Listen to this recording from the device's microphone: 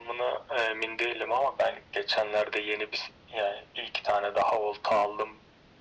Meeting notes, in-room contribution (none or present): none